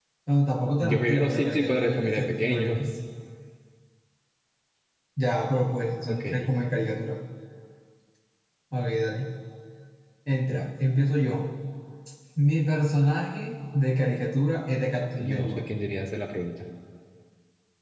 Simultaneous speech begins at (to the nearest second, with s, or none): 1 s